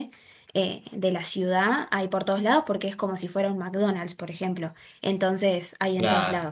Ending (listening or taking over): taking over